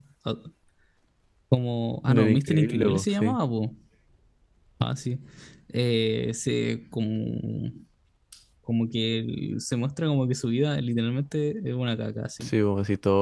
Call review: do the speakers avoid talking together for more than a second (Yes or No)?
No